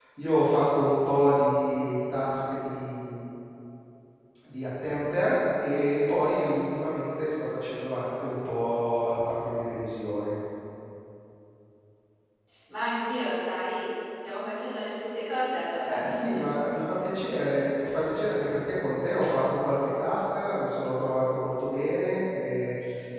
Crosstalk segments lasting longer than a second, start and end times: none

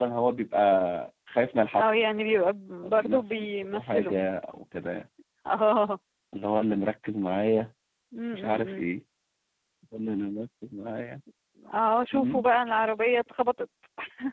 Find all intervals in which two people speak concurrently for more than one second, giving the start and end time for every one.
2.9-4.1

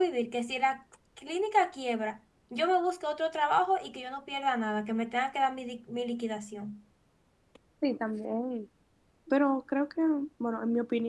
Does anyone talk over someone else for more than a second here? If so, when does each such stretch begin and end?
none

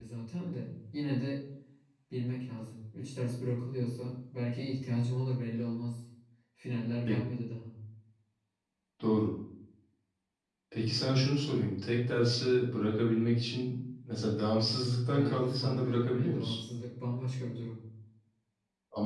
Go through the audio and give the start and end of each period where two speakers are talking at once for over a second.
15.0-16.6

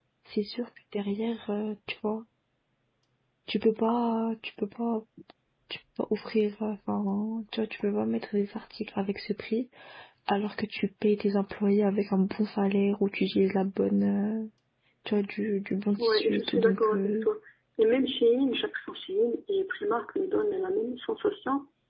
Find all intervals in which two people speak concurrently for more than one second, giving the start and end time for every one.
16.0-17.3

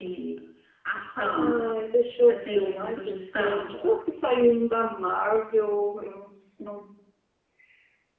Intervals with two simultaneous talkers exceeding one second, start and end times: 2.2-3.7

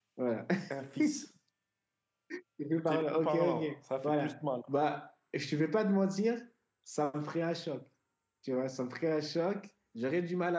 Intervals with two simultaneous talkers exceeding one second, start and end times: 2.9-4.4

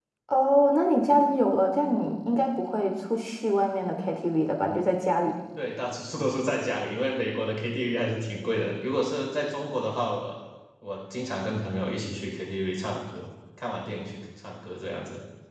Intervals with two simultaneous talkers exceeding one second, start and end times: none

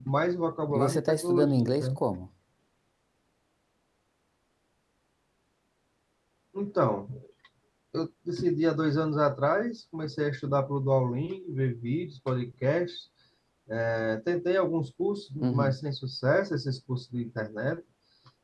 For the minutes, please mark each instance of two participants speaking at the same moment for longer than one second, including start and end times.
0.7-2.0

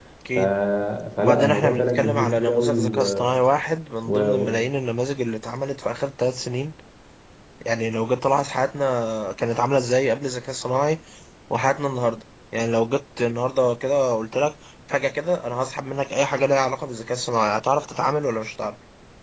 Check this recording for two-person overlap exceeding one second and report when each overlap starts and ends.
1.2-3.0

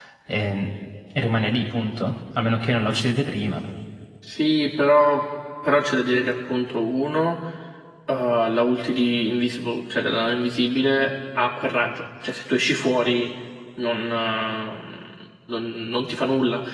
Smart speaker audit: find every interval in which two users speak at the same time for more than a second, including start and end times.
none

